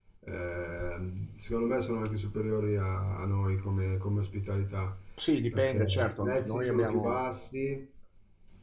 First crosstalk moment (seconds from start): 5.5 s

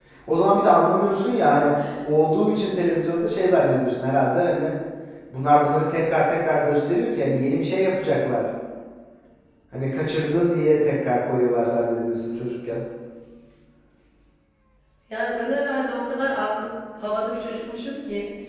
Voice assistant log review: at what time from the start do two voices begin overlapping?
none

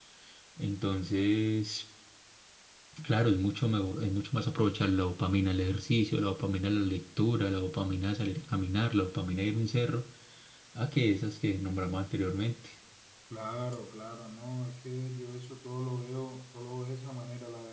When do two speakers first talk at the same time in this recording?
none

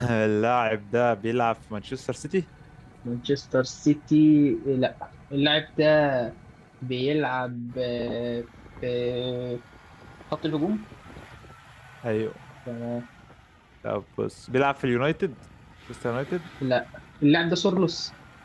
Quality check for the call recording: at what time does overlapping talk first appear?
none

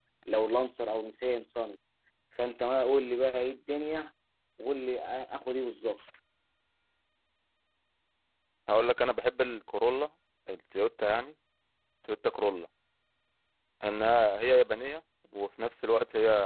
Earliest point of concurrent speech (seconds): none

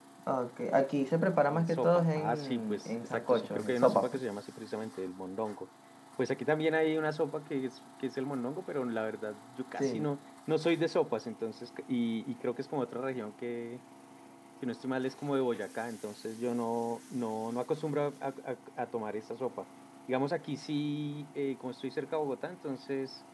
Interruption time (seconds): 1.5 s

